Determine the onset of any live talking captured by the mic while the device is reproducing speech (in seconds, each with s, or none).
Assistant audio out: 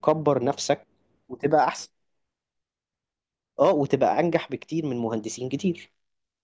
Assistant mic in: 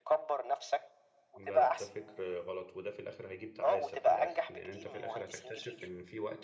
1.4 s